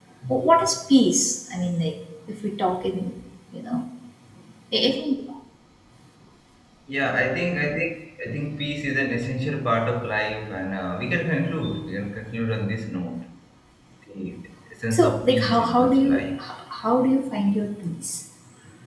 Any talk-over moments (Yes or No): Yes